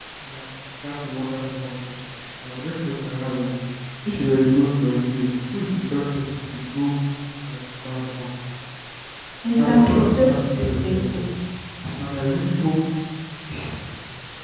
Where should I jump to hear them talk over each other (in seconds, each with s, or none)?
9.6 s